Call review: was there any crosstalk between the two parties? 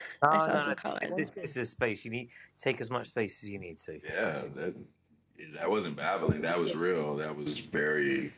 Yes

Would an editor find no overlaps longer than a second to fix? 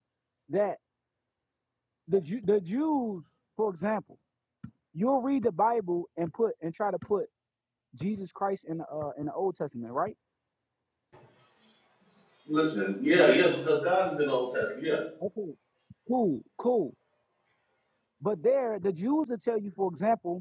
Yes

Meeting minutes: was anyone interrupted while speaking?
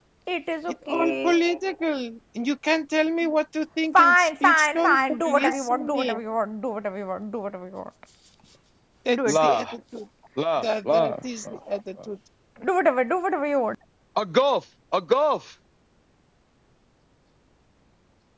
Yes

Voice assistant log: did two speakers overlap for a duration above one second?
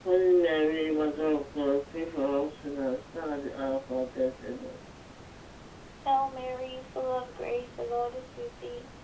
No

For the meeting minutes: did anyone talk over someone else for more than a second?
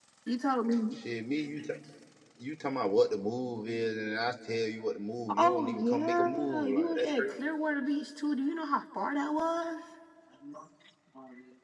Yes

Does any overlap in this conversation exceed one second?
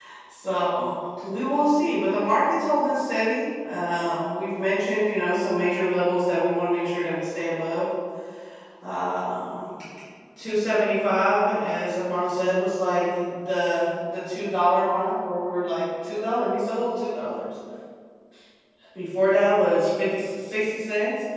No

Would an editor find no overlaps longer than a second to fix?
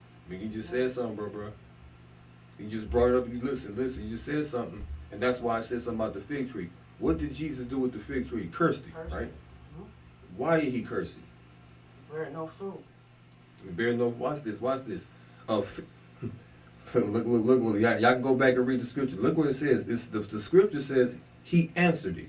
Yes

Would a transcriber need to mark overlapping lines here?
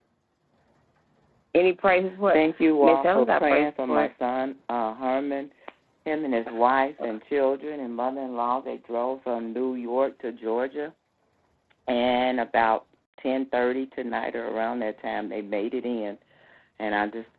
Yes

